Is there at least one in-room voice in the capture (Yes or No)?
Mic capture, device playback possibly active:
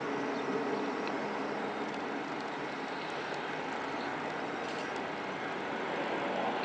No